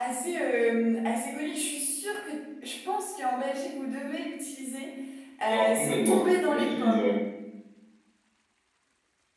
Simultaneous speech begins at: 5.5 s

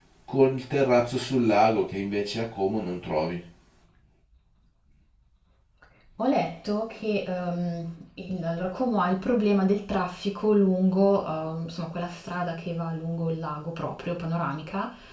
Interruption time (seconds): none

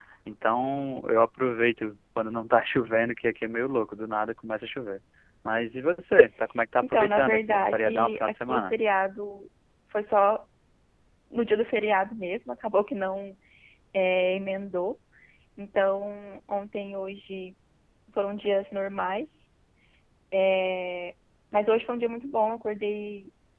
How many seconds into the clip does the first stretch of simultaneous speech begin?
6.8 s

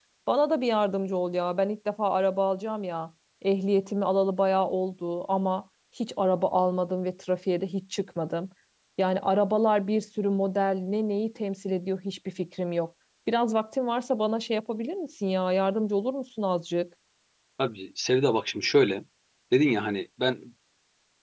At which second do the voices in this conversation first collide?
none

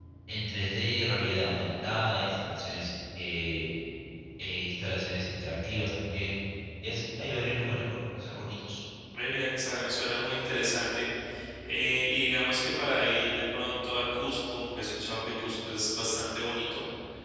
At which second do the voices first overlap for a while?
none

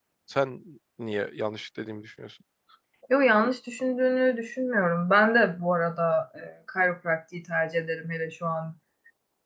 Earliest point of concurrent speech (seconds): none

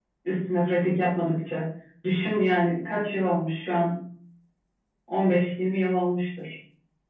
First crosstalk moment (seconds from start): none

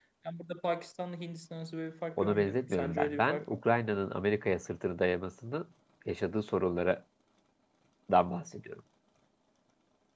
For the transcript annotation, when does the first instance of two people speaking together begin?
2.1 s

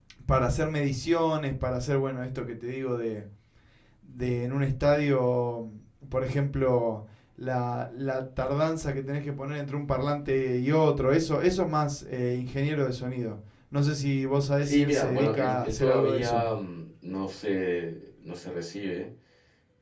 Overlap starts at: 14.6 s

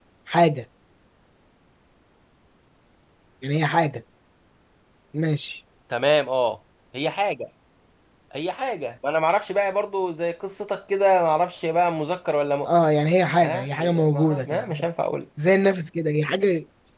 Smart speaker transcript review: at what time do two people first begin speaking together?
13.4 s

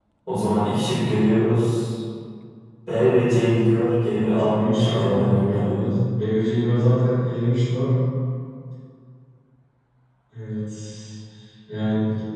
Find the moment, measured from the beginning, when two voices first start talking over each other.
4.2 s

